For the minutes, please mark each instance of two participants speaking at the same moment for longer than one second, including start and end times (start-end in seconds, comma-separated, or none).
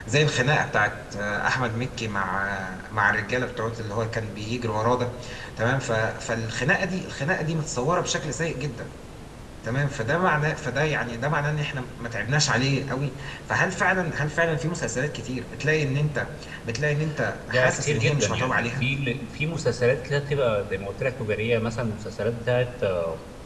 17.5-18.9